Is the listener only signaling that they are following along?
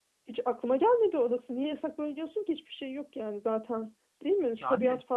Yes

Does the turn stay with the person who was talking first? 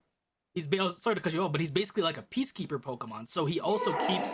Yes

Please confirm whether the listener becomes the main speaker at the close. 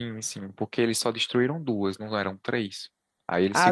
Yes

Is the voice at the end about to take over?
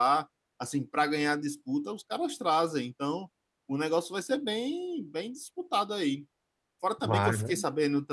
No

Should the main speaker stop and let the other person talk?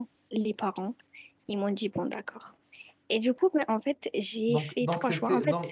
Yes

